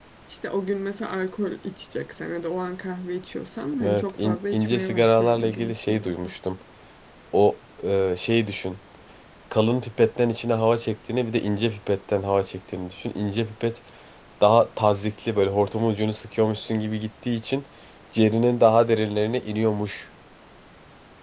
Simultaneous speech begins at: 3.7 s

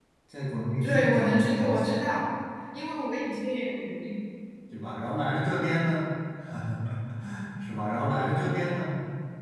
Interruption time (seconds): 0.8 s

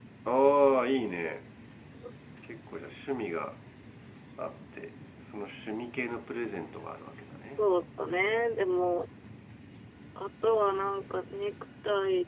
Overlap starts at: none

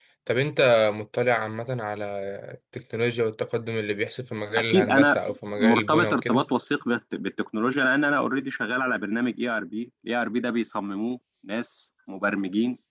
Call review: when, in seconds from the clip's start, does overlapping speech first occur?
4.5 s

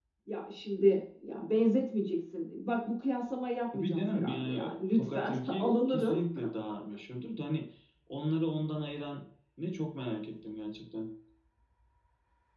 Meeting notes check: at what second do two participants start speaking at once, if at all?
3.7 s

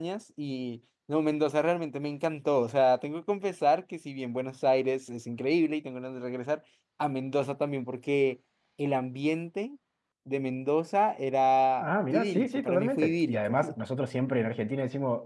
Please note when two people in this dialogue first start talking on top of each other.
11.8 s

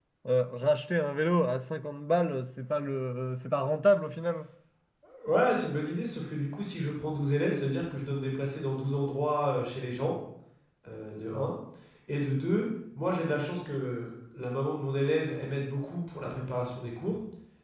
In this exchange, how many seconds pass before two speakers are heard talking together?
none

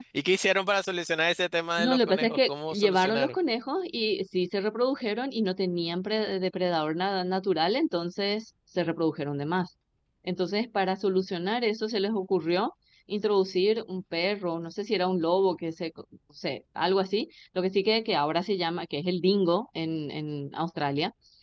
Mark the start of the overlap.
1.8 s

